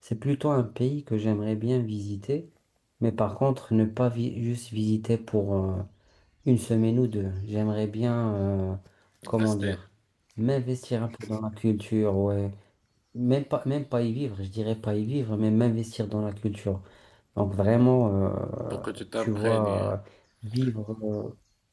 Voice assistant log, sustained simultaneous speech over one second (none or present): present